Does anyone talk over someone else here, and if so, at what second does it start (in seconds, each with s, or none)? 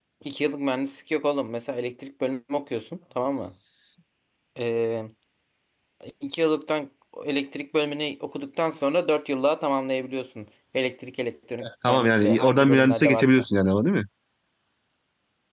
11.6 s